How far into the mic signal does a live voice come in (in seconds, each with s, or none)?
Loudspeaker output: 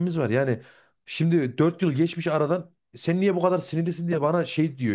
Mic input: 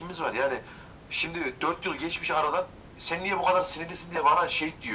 none